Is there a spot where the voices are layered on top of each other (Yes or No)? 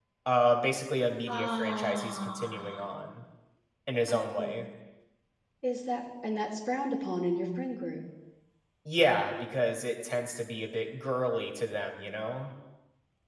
Yes